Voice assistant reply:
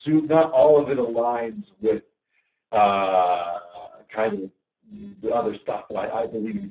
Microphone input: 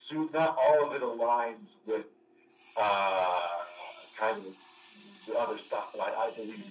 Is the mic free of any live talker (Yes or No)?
Yes